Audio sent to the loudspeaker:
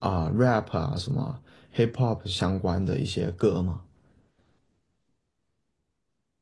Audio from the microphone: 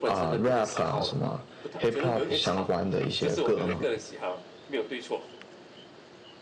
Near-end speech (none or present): present